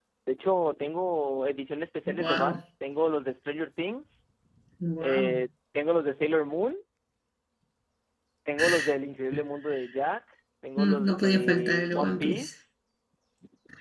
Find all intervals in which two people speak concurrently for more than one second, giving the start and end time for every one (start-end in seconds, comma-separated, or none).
10.8-12.5